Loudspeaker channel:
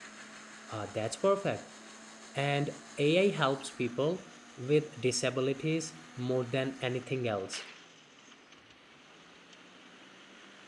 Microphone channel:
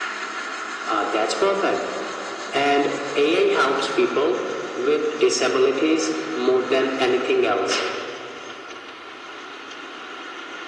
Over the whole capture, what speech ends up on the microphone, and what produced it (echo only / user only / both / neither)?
echo only